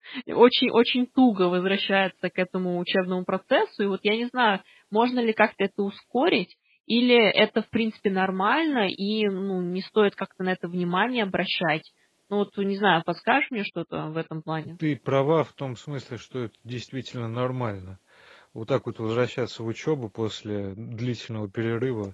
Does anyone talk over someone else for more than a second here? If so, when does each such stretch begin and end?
none

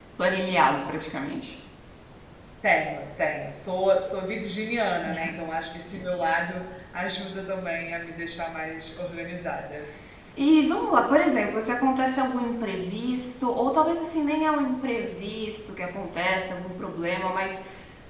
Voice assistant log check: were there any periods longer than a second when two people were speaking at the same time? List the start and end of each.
none

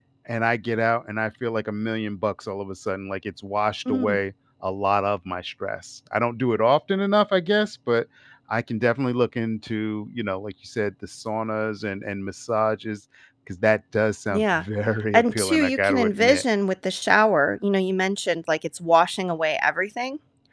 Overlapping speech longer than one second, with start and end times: 15.1-16.4

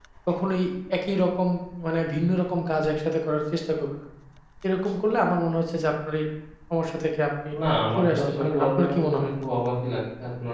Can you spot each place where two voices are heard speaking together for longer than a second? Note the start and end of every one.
8.0-9.3

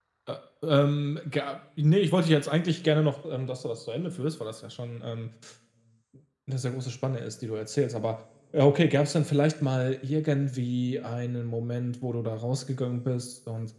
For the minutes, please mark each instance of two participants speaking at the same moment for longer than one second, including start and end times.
none

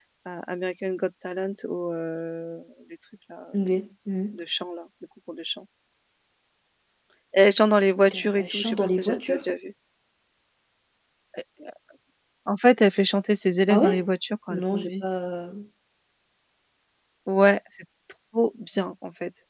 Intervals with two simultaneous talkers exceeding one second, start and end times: 8.1-9.4

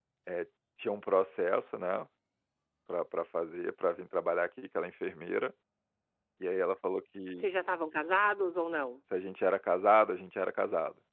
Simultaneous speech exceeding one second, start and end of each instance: none

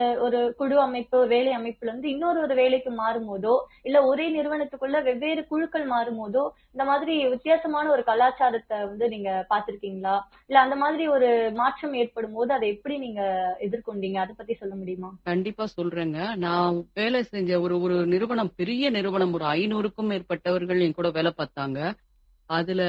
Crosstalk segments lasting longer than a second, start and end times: none

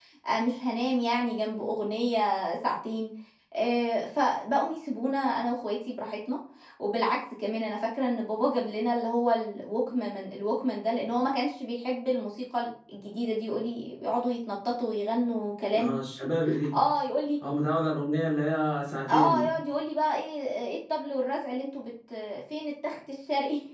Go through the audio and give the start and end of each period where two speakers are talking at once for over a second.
none

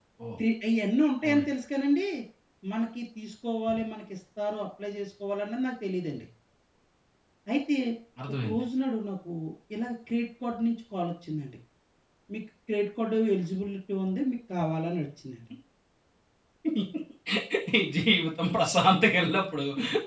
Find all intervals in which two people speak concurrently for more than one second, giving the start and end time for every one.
none

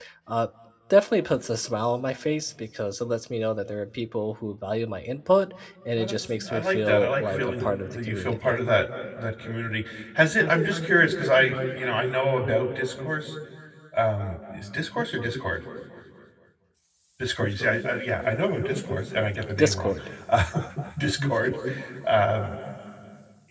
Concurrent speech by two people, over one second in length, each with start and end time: 6.0-8.6

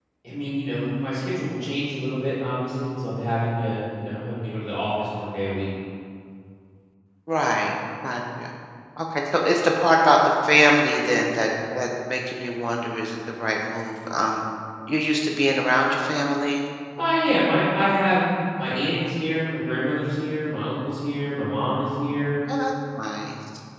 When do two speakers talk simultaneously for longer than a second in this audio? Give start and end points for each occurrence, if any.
none

